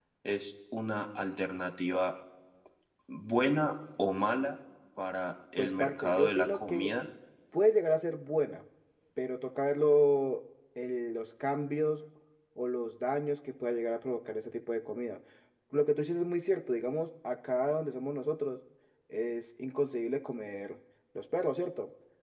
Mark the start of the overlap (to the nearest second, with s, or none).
6 s